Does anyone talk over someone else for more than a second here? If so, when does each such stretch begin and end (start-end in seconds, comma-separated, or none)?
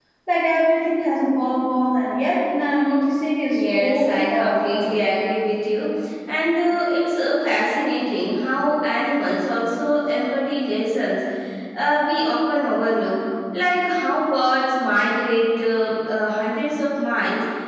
3.5-5.0